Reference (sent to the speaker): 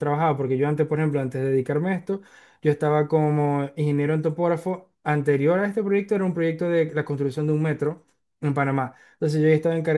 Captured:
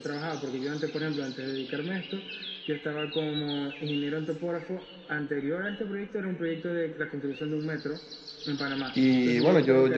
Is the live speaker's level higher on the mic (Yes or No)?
Yes